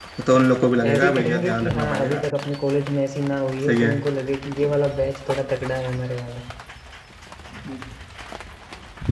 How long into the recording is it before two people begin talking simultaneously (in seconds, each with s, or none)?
0.8 s